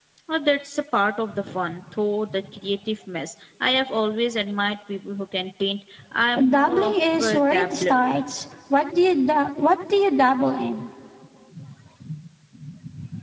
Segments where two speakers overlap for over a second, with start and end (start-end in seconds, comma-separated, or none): 6.5-8.2